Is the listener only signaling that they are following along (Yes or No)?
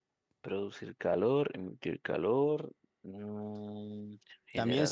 No